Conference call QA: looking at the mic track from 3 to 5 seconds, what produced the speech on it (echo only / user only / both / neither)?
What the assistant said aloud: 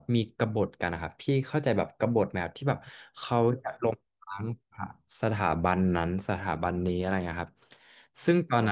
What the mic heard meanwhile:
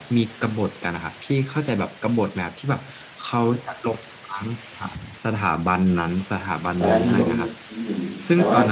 echo only